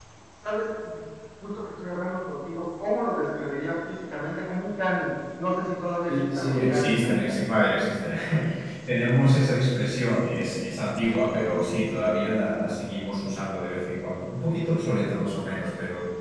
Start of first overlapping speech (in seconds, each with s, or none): 6.1 s